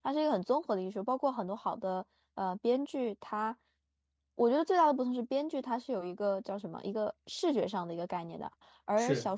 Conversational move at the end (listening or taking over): listening